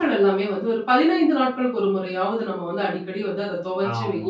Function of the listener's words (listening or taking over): taking over